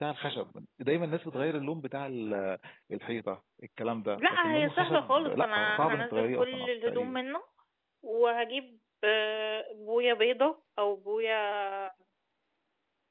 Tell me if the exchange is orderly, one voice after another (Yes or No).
No